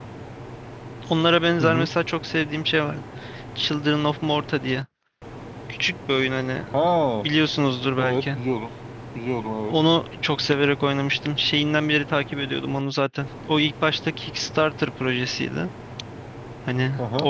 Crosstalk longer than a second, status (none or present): none